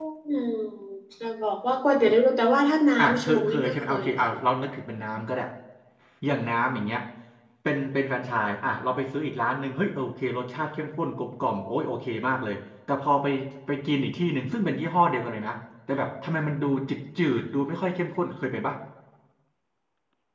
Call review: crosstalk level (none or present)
present